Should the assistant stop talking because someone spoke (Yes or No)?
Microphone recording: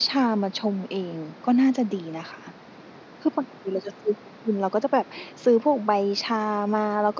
Yes